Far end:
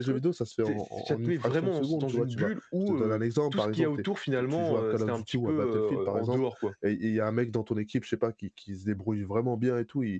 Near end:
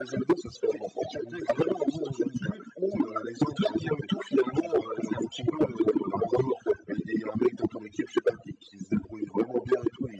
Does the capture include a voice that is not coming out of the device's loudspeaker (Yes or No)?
No